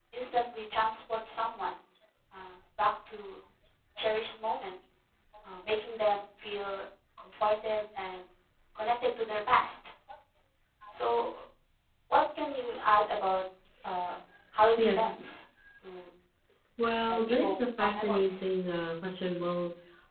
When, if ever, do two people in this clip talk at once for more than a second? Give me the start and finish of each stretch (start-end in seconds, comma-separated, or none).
17.1-18.4